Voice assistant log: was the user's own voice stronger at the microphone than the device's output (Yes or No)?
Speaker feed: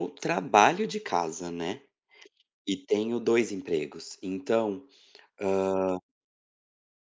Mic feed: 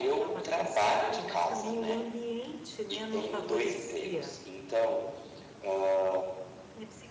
No